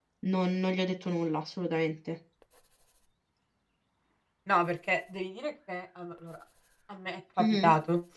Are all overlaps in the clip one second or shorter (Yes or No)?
Yes